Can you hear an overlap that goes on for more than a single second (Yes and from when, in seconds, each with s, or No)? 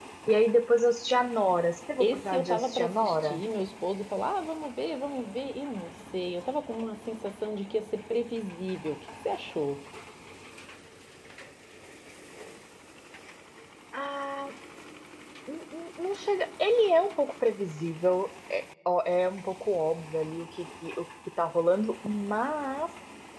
Yes, from 2.0 s